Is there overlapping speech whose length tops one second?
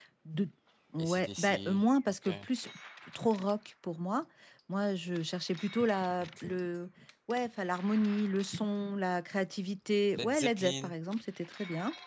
Yes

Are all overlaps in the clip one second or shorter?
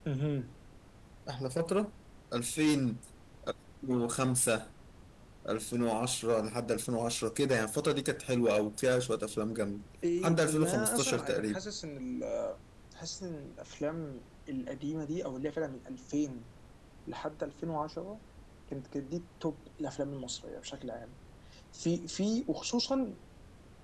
No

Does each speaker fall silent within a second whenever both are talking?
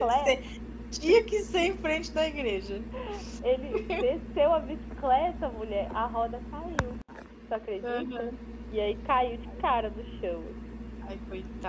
Yes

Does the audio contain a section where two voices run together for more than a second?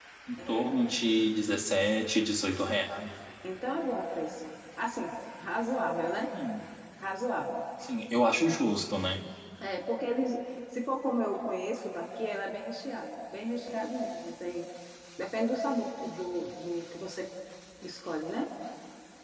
No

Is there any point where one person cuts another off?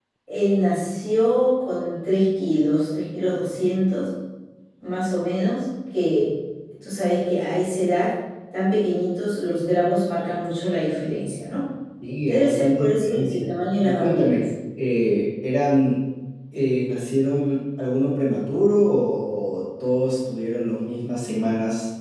Yes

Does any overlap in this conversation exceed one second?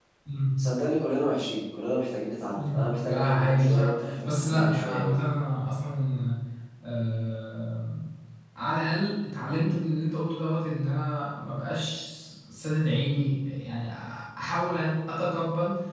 Yes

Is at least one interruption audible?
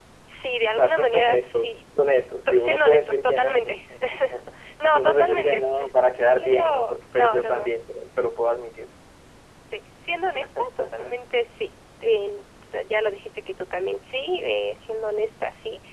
Yes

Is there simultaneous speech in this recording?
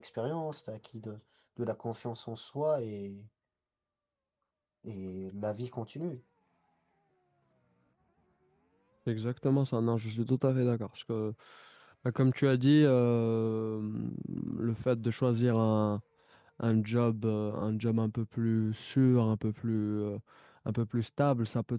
No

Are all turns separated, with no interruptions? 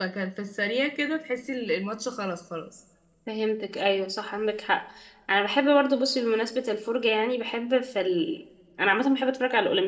Yes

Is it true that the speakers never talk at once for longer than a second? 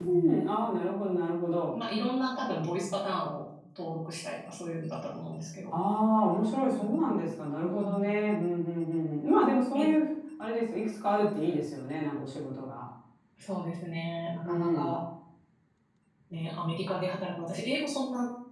Yes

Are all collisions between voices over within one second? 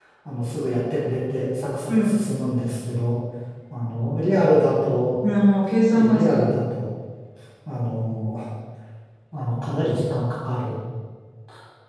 Yes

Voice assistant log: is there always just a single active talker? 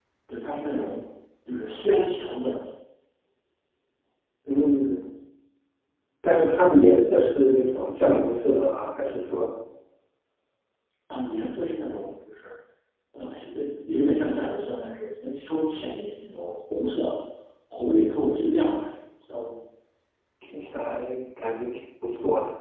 Yes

